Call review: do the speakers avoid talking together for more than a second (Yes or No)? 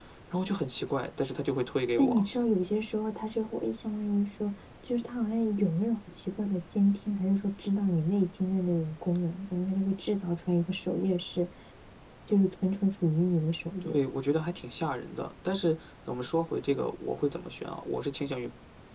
Yes